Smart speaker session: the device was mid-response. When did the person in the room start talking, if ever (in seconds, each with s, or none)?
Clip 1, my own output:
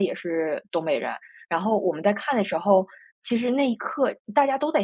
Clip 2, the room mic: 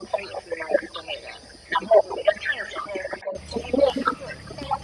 none